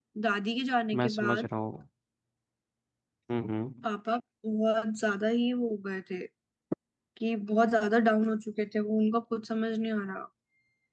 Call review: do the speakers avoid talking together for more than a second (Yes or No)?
Yes